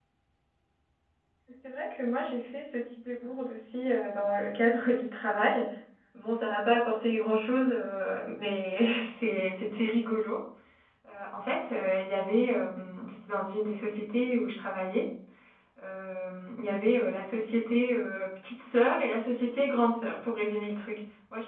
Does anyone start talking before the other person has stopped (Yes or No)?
No